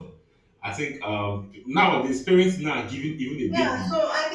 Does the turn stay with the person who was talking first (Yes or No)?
No